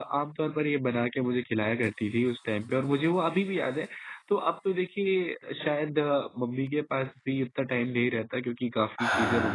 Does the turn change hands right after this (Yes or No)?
No